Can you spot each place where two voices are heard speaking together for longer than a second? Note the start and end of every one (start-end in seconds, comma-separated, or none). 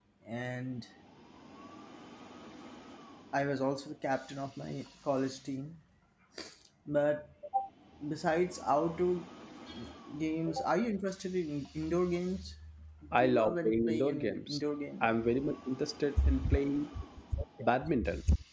13.2-14.6